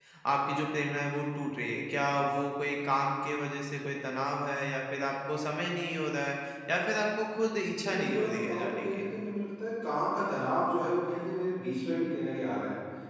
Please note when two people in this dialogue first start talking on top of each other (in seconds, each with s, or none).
7.7 s